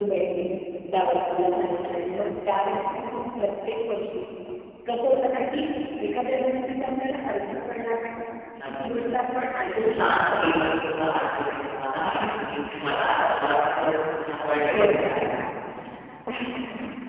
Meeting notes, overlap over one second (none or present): present